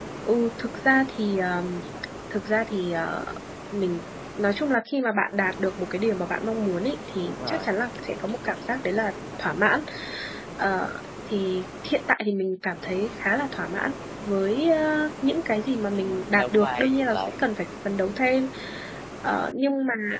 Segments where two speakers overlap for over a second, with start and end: 15.9-17.4

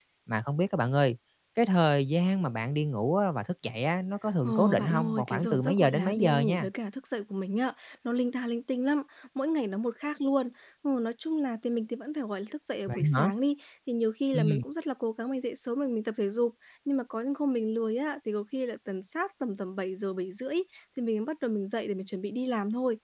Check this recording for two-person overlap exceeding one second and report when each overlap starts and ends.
4.4-6.7

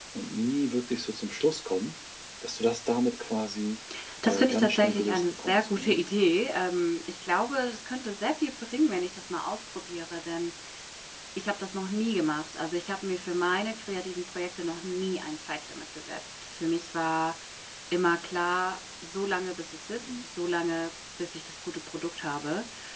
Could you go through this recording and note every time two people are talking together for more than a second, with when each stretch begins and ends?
4.3-6.0

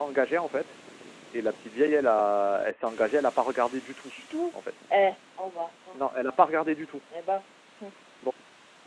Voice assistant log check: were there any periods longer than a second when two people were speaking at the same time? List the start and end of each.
none

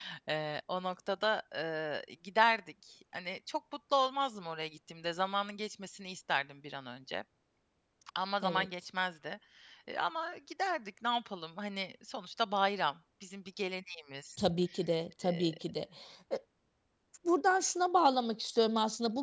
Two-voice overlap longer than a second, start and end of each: none

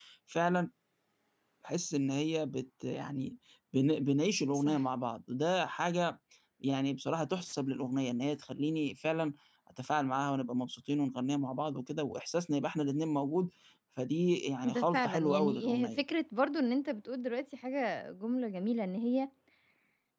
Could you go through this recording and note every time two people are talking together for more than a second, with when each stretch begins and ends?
14.6-16.0

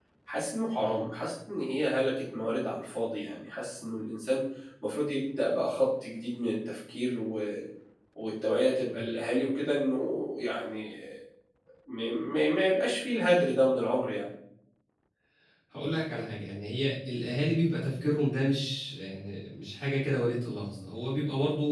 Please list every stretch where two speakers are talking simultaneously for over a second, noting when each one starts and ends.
none

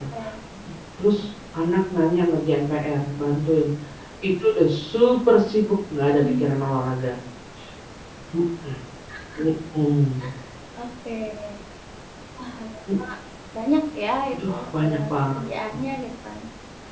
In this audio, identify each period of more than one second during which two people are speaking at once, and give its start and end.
14.3-15.8

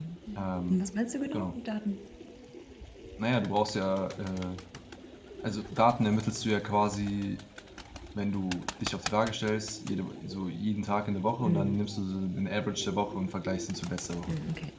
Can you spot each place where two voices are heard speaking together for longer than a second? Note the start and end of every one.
none

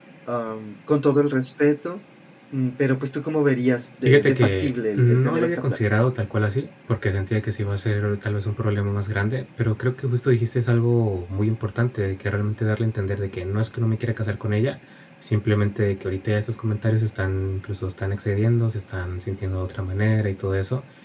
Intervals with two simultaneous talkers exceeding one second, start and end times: 4.0-5.8

